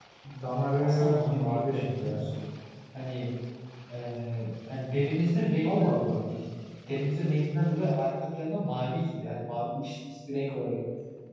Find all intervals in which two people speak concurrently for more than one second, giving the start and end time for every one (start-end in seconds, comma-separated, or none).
0.8-2.2